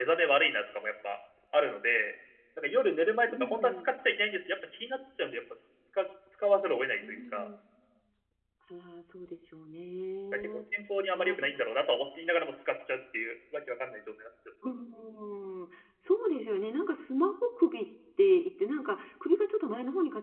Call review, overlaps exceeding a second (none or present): none